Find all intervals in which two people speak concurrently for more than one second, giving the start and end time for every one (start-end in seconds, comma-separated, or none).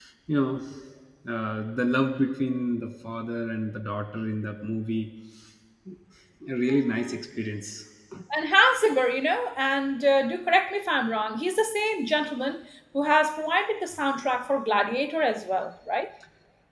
none